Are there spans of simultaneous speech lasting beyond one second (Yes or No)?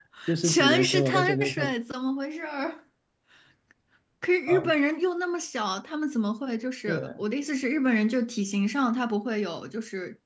Yes